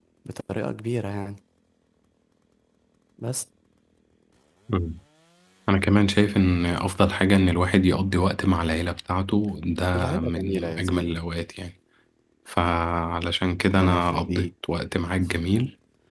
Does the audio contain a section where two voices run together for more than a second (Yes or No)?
Yes